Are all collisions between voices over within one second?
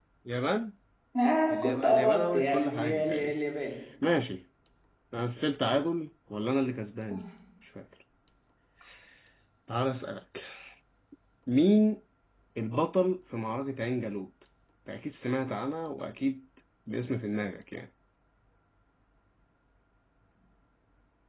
No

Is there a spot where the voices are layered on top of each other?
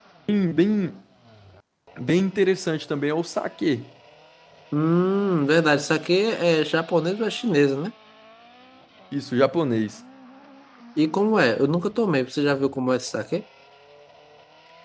No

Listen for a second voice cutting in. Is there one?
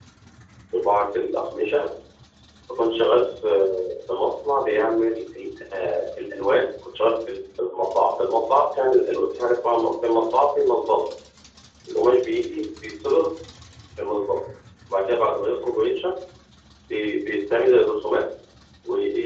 No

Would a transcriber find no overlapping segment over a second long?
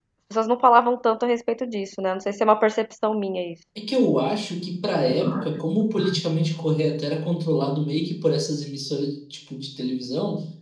Yes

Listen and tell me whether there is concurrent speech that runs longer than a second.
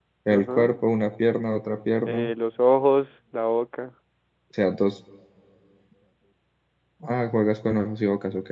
No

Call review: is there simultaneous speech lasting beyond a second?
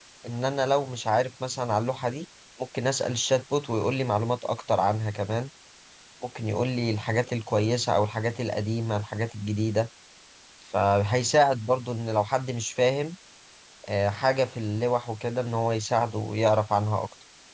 No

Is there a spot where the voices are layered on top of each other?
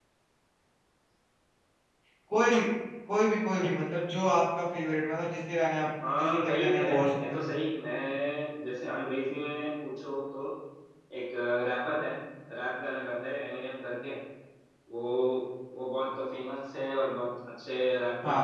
Yes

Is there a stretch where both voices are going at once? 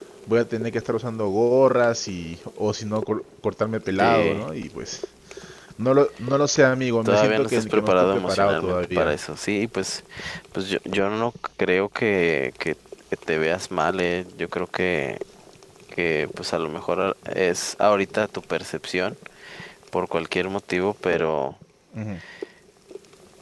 Yes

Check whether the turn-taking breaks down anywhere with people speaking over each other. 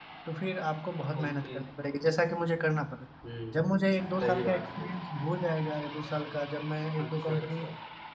Yes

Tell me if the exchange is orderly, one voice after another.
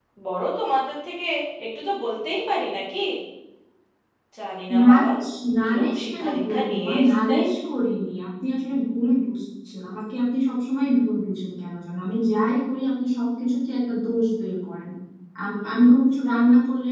No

